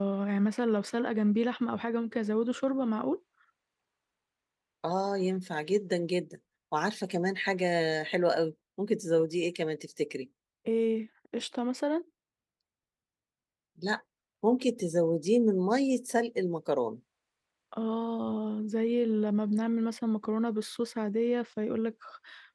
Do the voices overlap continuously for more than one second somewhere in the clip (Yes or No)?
No